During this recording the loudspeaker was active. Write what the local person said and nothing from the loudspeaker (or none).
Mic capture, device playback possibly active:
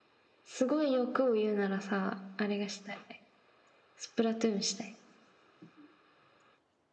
none